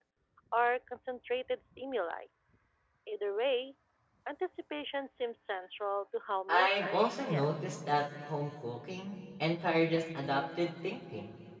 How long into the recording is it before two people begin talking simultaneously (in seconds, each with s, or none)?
6.5 s